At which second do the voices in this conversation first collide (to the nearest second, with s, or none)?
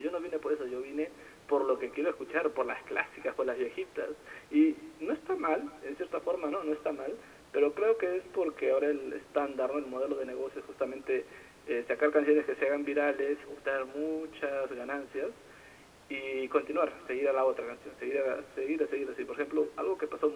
none